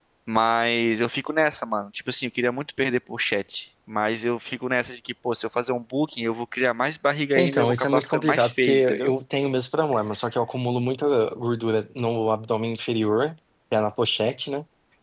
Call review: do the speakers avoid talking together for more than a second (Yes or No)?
No